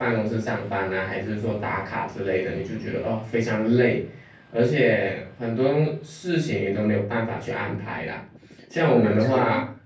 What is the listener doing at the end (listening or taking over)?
listening